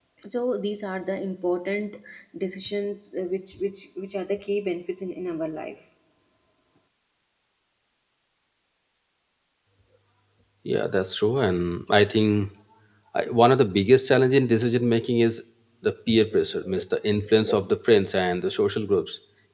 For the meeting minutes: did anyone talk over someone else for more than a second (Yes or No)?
No